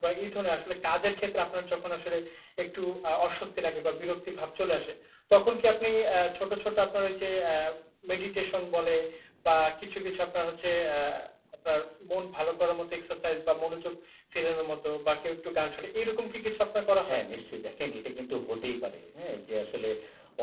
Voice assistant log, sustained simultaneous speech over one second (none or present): none